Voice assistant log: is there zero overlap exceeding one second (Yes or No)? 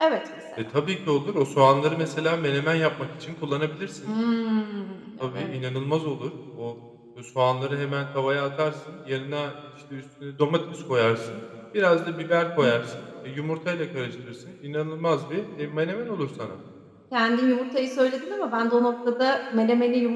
Yes